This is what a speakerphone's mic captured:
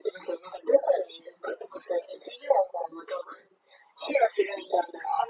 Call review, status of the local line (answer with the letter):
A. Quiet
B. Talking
A